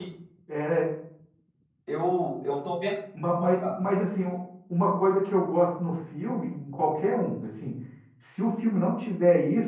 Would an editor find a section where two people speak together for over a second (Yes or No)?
No